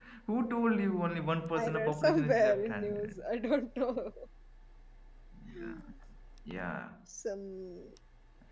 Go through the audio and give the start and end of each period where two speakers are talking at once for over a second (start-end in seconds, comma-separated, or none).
1.6-3.2